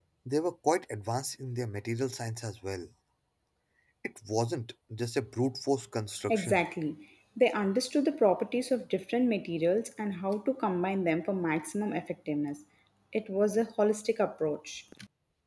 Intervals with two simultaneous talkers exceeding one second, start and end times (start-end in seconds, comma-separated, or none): none